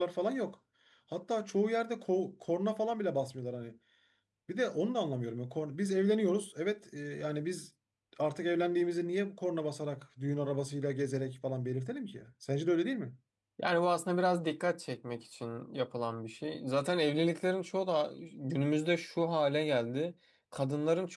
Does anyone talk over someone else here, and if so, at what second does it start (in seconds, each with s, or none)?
none